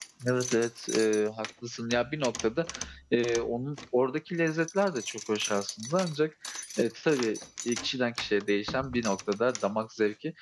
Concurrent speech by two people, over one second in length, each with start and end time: none

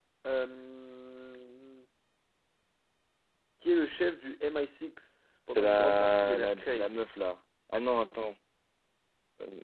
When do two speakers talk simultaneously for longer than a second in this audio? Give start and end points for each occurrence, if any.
5.5-7.0

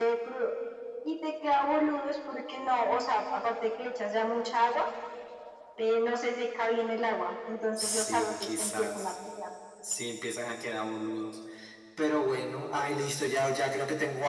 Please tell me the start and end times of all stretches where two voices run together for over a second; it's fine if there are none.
7.8-9.1

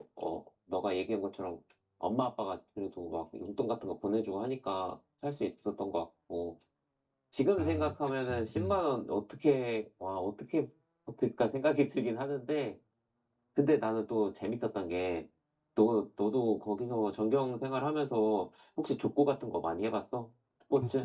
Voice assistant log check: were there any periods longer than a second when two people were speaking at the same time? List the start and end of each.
7.6-8.8

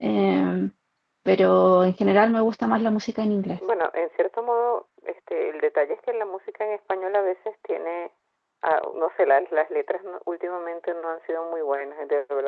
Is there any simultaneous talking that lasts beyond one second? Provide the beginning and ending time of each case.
none

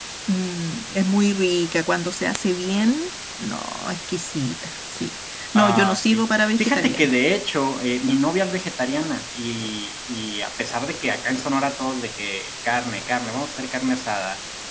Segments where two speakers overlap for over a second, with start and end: 5.6-7.2

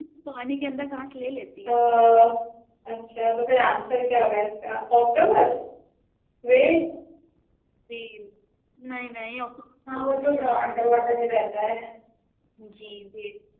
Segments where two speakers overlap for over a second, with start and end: 9.9-11.2

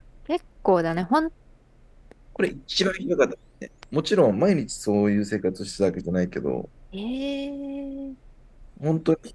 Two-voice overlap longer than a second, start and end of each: none

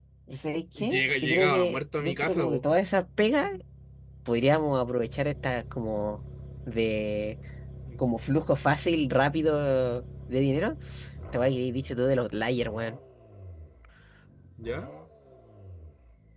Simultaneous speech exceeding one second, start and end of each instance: 0.8-2.6

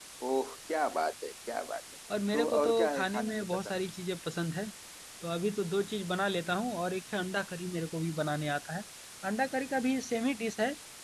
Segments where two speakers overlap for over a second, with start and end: 2.3-3.8

